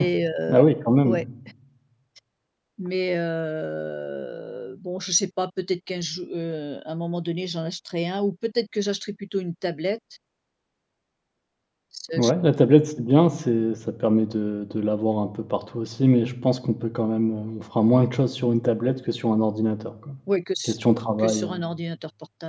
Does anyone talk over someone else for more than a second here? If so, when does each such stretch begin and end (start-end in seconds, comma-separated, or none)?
none